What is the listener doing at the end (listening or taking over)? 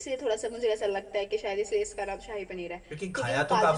taking over